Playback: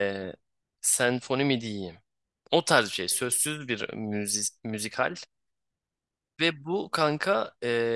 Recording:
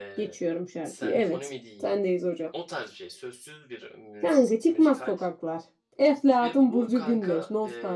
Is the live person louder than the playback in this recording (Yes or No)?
Yes